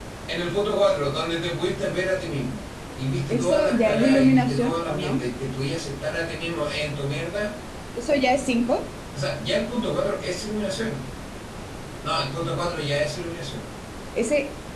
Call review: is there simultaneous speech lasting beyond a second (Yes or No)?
Yes